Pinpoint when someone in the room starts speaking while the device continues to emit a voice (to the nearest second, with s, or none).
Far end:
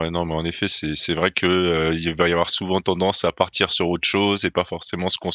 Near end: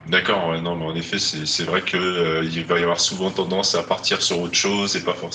none